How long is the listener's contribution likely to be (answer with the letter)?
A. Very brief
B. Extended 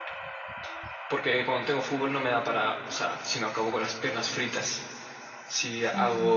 A